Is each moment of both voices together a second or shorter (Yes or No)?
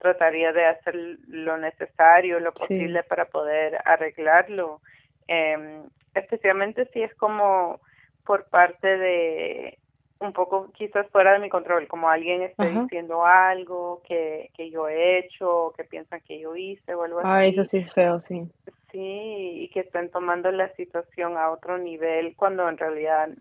Yes